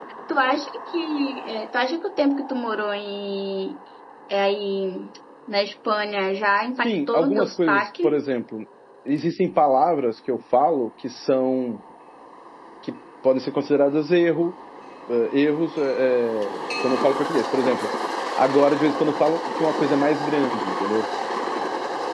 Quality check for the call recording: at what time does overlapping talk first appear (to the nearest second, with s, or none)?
7 s